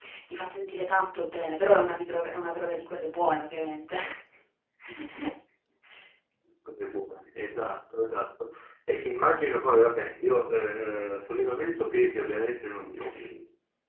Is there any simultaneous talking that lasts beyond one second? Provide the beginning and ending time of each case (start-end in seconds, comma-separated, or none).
none